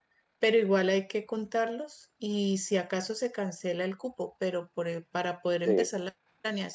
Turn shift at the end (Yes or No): No